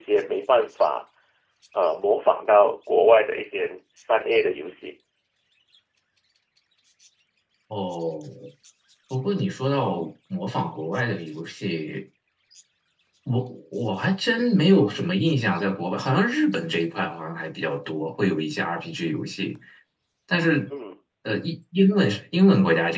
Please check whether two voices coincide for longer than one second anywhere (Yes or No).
No